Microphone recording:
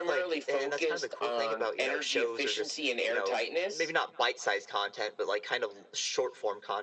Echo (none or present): present